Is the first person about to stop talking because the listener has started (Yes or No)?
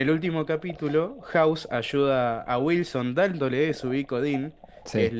No